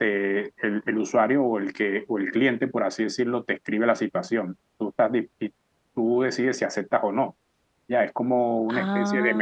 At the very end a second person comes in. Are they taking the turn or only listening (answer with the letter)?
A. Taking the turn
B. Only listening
B